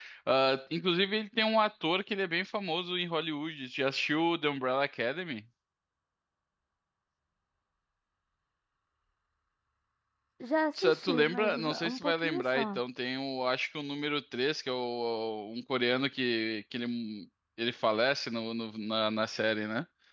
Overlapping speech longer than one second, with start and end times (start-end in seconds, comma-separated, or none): 10.8-12.8